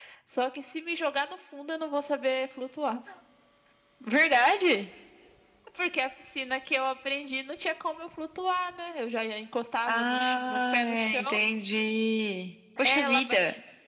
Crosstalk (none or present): present